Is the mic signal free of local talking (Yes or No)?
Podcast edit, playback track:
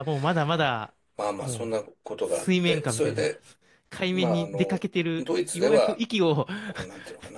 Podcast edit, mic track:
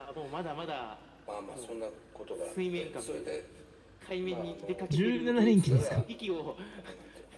No